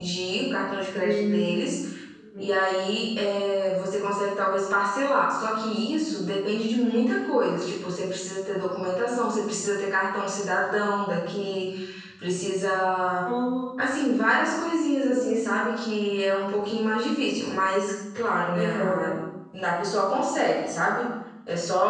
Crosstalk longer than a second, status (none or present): none